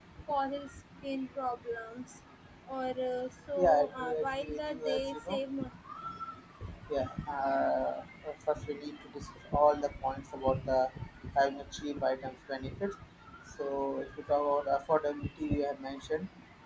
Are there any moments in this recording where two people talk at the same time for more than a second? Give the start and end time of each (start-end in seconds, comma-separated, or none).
3.6-5.4